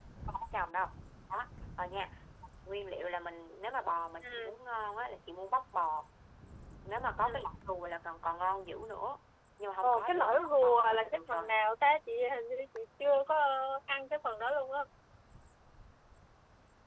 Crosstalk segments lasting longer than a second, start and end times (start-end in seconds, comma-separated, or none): 9.8-11.5